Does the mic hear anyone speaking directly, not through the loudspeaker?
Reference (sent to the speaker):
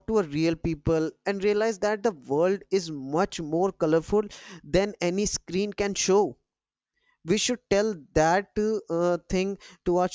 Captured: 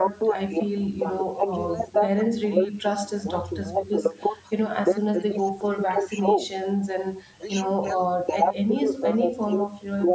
Yes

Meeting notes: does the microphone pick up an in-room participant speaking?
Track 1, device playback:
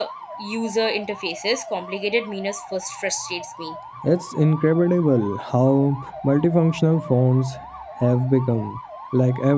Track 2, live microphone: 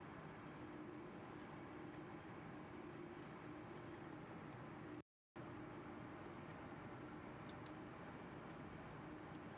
No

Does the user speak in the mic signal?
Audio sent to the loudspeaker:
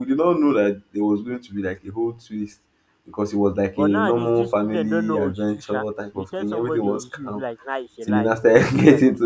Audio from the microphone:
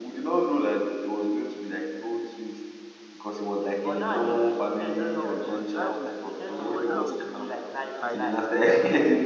Yes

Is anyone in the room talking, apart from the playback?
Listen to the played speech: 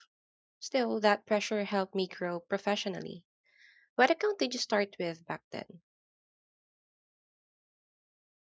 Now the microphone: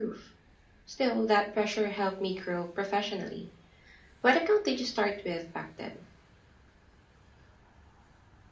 No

